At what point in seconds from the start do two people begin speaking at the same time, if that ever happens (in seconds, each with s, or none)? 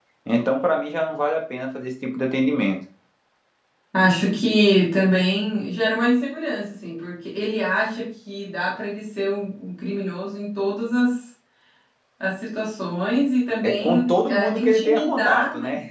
13.6 s